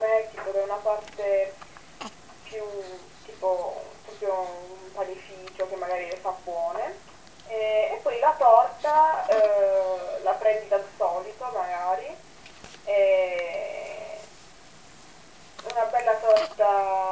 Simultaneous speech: No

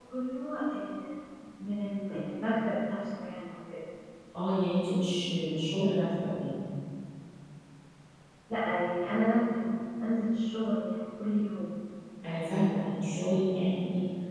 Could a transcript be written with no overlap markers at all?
Yes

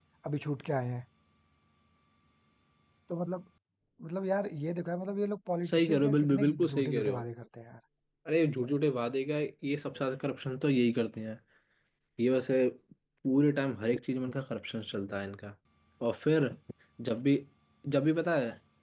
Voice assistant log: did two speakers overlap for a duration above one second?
Yes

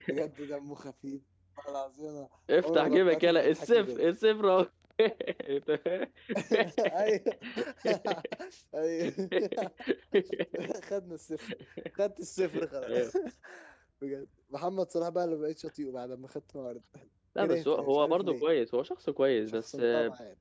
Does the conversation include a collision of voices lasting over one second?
Yes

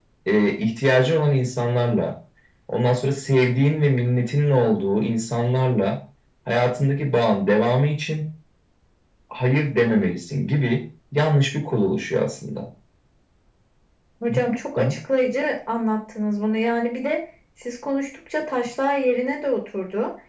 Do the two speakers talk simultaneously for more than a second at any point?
No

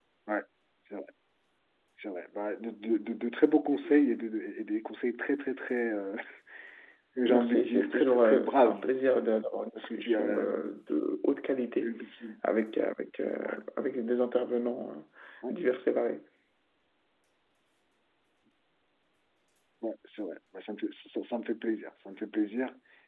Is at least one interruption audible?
Yes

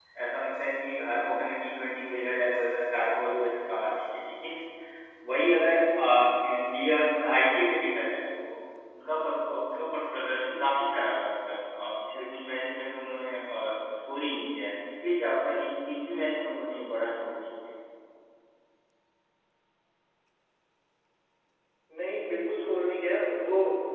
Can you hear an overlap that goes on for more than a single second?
No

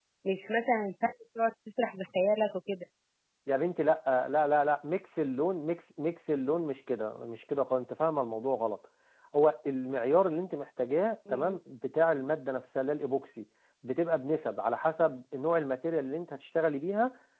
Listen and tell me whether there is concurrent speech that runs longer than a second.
No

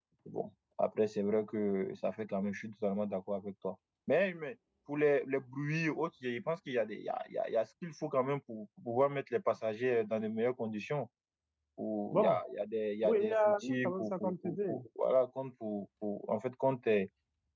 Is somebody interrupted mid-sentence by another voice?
Yes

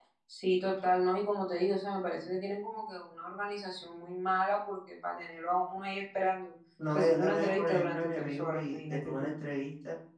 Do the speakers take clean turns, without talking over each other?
No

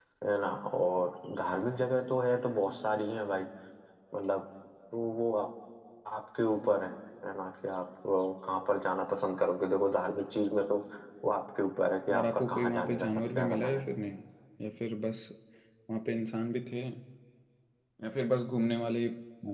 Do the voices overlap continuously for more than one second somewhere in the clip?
Yes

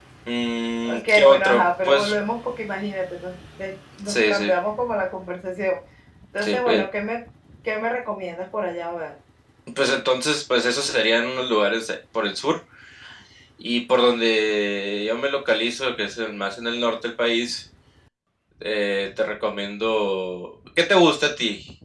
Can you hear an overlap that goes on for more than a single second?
Yes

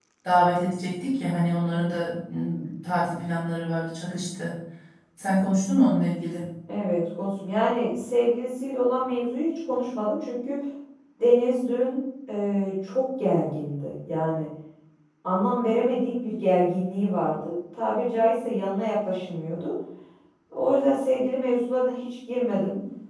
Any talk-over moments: No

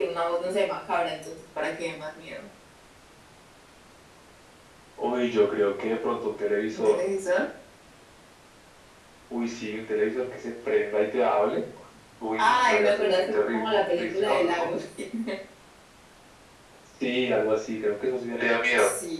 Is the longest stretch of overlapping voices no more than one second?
No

